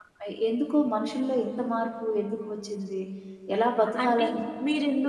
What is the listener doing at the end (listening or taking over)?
taking over